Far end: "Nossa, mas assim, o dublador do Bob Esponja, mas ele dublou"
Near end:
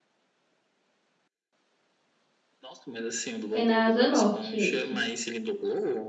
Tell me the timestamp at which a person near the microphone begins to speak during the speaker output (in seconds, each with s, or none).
3.5 s